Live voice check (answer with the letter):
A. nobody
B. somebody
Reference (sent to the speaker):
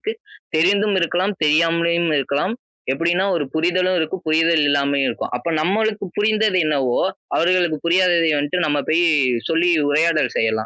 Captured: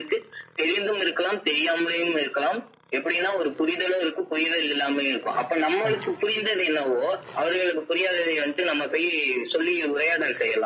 B